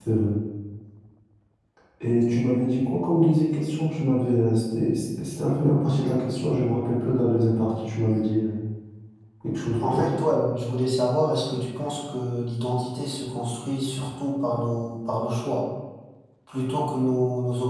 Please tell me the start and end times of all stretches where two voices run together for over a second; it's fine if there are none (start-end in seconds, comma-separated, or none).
none